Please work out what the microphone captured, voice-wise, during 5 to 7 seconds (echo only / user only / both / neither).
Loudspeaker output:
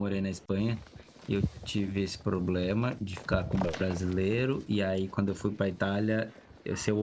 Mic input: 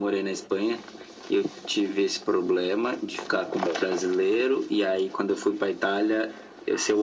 echo only